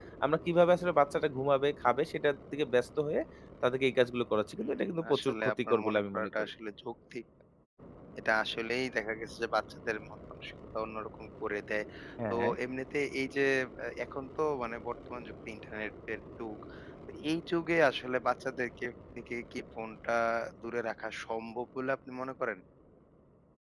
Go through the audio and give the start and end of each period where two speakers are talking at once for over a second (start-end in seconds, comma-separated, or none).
4.6-6.5